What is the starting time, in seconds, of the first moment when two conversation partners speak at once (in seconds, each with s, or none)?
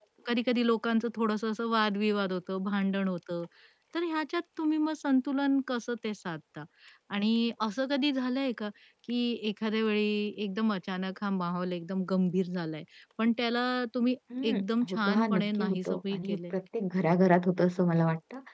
14.3 s